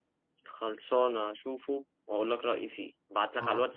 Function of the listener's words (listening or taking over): listening